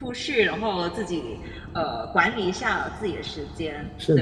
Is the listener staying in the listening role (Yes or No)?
No